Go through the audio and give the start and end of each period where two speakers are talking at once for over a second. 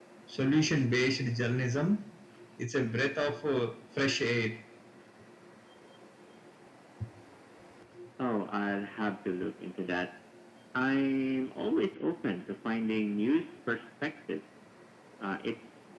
none

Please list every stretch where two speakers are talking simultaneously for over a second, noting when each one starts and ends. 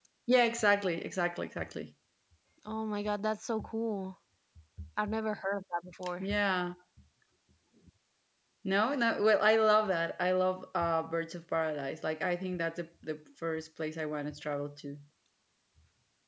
none

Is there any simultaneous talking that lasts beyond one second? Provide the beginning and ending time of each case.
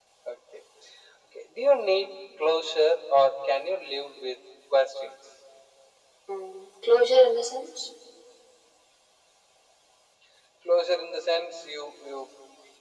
none

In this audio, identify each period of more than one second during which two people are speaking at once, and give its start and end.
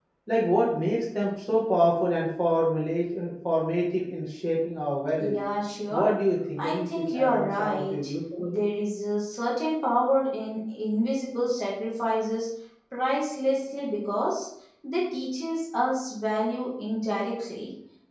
6.6-8.1

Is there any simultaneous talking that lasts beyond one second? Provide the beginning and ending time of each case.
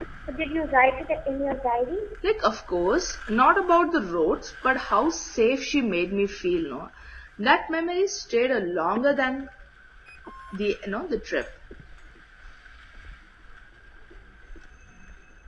none

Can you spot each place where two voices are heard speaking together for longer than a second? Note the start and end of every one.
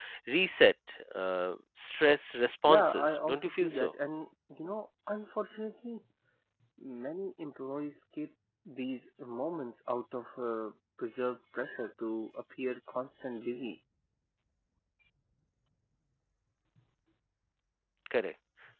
2.7-3.9

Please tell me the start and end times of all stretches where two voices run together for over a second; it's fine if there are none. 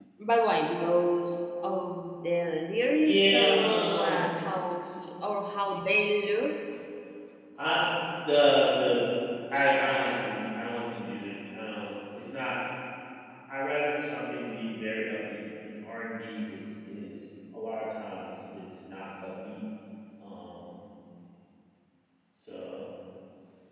2.9-4.2

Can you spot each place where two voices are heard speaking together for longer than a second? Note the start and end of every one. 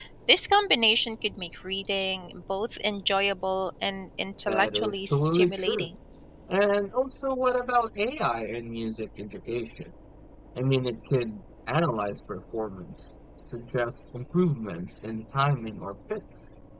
4.5-5.9

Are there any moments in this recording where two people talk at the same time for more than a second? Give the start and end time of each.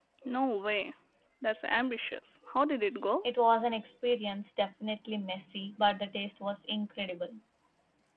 none

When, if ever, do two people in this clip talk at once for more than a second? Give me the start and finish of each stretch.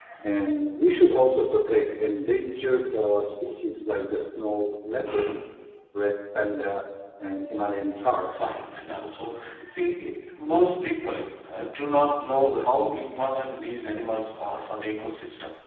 none

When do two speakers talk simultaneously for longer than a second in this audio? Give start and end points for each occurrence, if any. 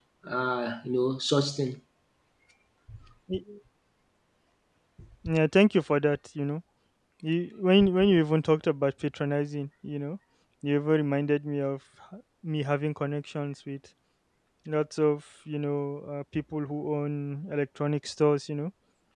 none

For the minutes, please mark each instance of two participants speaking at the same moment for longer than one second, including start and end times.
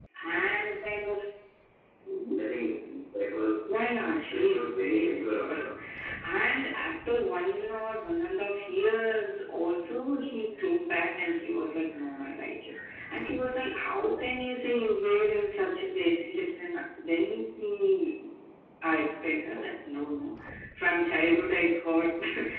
4.3-5.5

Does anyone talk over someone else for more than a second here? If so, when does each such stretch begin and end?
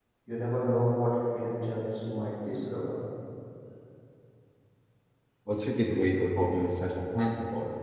none

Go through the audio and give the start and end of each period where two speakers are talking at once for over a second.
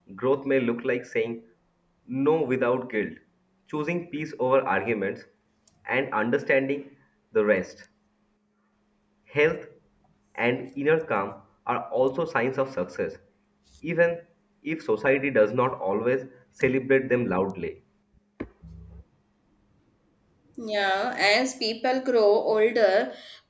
none

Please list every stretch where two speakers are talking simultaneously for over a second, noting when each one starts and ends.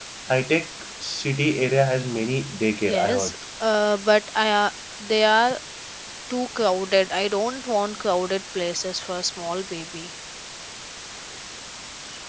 none

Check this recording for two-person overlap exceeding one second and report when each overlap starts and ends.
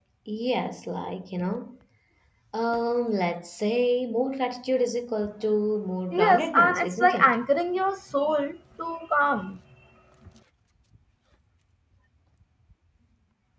6.1-7.3

